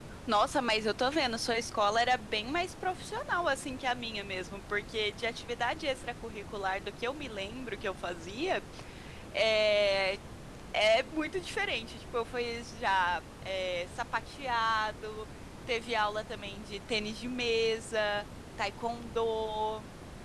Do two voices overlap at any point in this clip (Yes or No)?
No